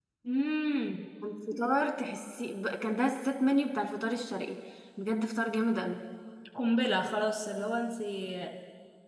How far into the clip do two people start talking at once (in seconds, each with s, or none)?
none